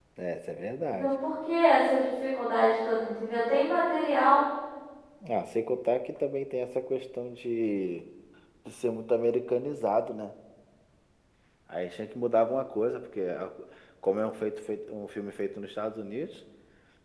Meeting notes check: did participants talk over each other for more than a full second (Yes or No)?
No